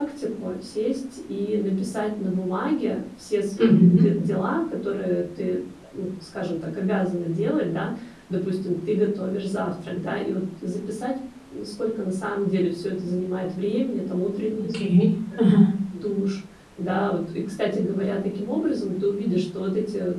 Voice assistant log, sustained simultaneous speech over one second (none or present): none